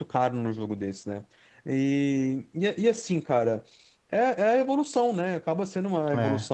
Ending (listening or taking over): listening